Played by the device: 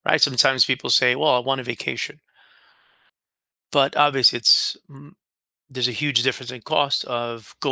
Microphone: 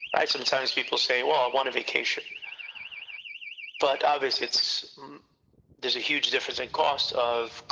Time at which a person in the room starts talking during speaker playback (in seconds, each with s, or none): none